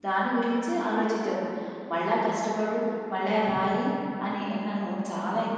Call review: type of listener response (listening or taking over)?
taking over